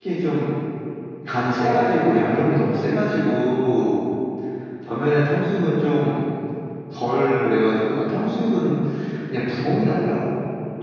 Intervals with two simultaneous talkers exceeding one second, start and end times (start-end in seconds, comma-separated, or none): none